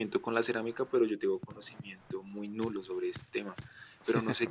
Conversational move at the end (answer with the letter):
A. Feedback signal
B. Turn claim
A